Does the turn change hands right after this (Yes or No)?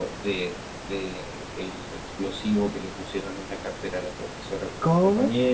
Yes